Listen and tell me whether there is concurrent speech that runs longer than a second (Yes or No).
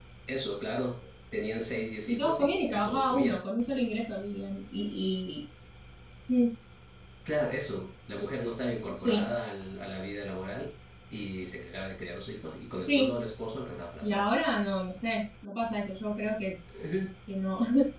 Yes